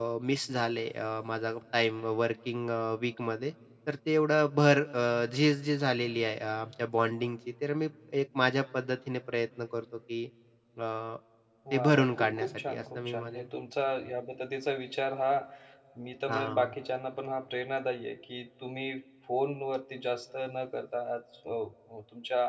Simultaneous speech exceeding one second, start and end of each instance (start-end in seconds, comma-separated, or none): 11.7-13.5